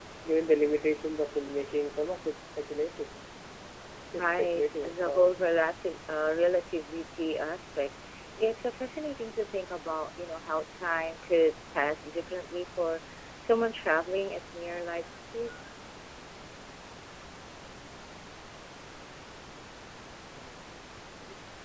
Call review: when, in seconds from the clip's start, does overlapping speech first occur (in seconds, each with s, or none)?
4.1 s